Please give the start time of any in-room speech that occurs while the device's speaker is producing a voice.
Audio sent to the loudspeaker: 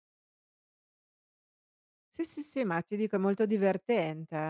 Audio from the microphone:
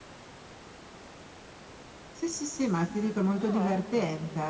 3.3 s

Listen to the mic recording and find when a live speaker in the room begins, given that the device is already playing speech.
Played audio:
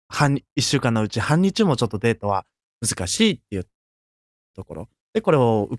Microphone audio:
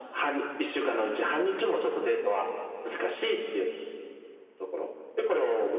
none

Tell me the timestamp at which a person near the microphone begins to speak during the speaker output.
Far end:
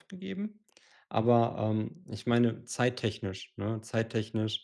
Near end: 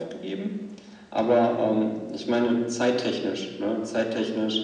none

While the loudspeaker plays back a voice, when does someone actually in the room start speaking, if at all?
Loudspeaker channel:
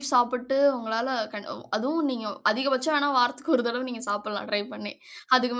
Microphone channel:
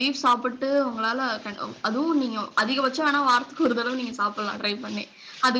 none

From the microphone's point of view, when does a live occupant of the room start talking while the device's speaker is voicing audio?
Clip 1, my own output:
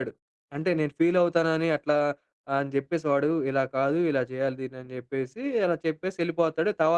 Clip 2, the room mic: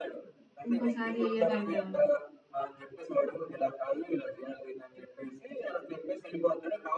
0.7 s

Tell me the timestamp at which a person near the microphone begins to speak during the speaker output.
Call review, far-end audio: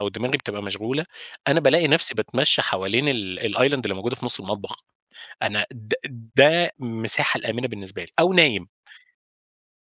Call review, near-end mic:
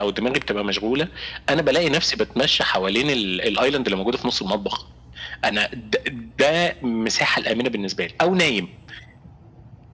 none

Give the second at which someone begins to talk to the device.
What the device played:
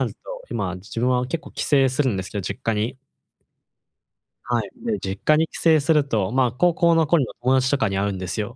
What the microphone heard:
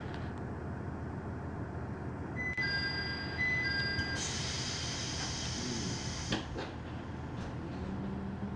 none

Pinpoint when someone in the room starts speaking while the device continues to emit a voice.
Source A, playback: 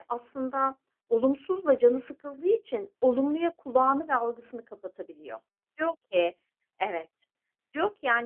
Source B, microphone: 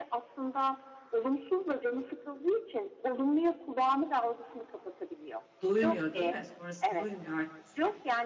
5.6 s

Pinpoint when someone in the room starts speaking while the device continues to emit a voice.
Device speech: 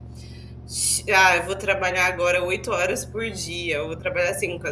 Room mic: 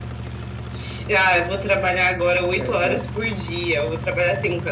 2.5 s

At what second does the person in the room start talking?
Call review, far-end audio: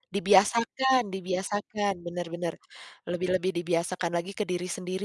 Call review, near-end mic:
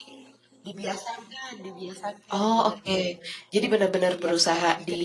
2.3 s

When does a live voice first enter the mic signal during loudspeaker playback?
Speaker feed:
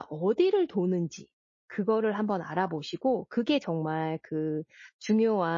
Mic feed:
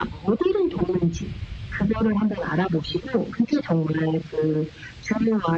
none

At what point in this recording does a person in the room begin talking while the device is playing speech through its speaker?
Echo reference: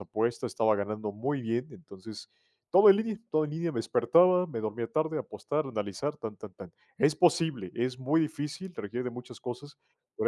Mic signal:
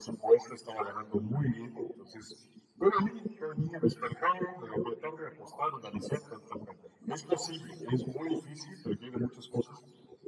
none

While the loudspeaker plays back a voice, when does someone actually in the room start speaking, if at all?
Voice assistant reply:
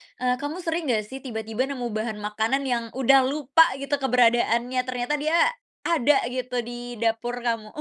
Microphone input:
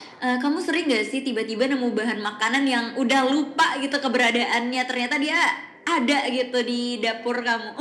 none

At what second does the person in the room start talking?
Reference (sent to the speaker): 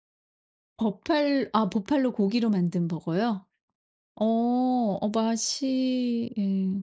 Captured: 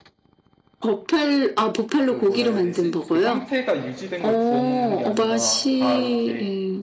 2.0 s

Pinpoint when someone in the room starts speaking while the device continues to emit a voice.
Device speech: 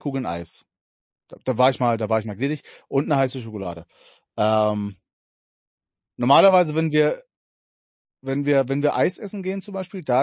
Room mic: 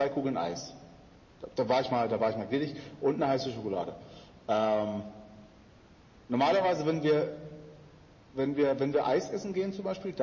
none

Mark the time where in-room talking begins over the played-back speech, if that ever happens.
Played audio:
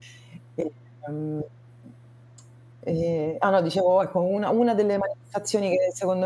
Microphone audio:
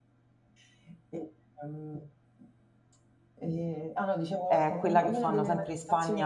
4.5 s

